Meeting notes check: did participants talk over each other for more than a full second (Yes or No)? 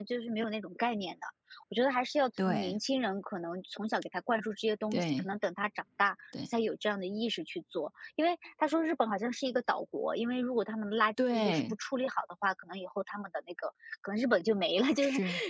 No